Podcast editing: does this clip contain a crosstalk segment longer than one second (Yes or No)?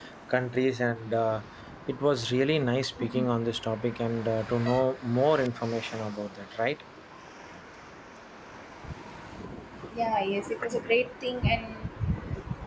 No